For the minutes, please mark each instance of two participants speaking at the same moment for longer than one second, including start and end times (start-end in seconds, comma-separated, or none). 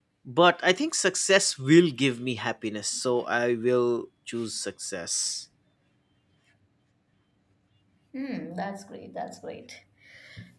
none